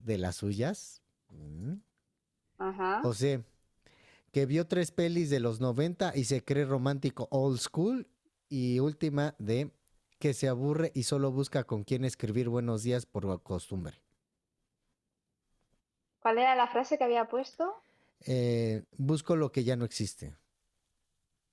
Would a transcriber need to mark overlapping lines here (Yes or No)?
No